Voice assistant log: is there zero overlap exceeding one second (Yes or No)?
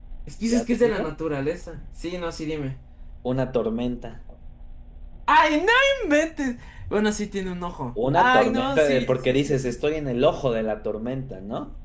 No